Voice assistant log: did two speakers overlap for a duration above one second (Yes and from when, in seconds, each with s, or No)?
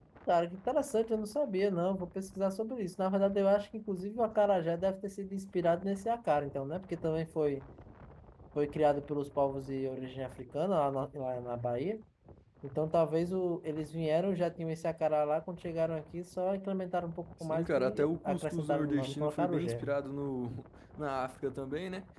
Yes, from 17.4 s